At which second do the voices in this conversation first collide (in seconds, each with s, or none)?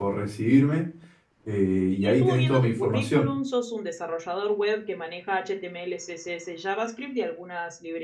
2.0 s